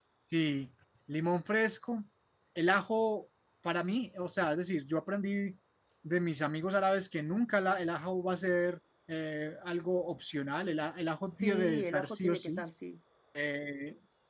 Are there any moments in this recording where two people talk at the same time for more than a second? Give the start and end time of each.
11.4-12.6

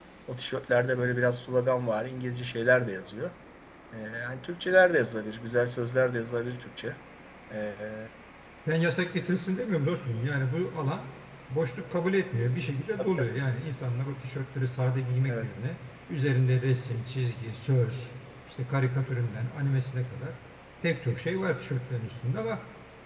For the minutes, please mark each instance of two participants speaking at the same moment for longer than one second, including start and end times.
none

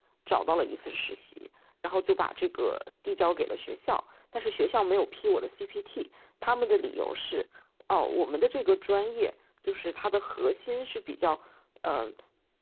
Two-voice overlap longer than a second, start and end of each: none

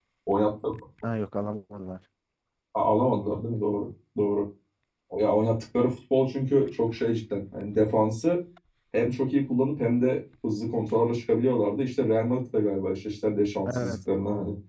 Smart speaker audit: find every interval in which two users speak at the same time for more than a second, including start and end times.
none

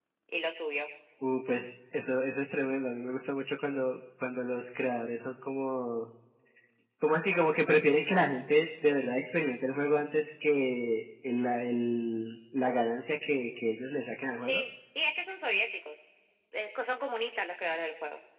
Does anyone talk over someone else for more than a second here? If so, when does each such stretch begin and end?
none

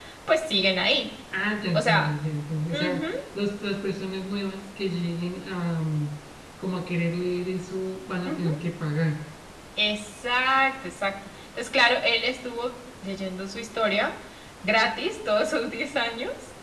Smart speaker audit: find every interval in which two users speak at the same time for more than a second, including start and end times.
none

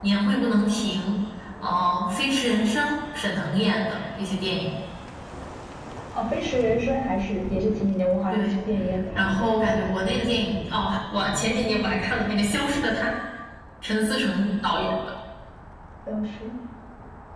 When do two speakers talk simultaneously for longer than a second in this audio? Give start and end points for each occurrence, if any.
none

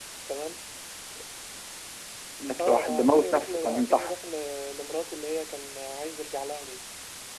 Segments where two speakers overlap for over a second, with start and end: 2.6-4.1

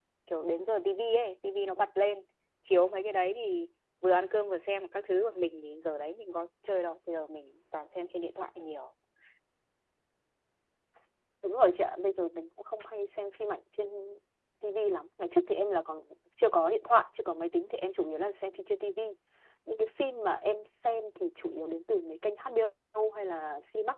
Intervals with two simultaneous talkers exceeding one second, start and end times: none

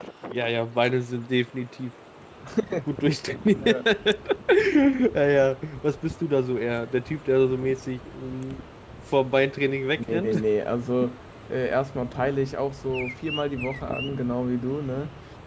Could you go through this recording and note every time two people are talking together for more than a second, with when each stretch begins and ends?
none

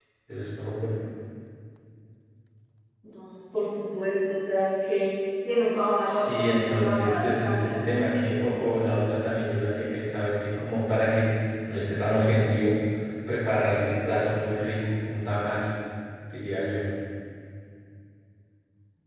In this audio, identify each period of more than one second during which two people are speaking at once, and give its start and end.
6.0-7.8

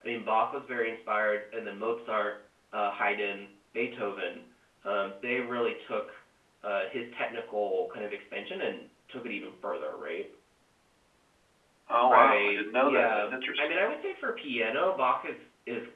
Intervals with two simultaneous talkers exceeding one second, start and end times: 12.1-13.7

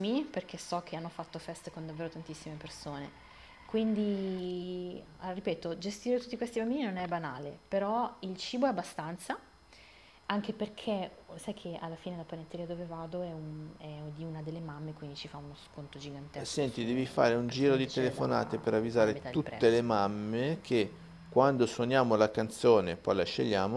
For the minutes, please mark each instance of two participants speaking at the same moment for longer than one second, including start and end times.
16.4-19.6

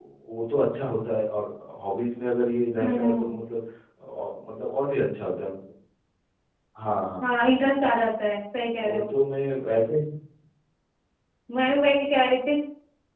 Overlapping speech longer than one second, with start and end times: none

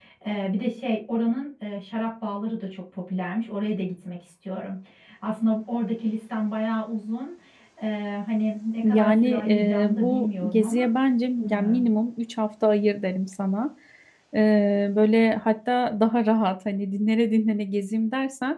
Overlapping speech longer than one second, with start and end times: 8.8-10.9

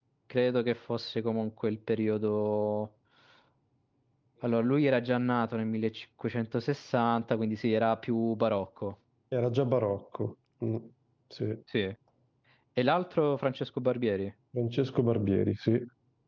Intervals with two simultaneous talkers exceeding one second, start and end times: none

